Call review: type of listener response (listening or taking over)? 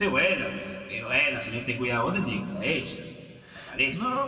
taking over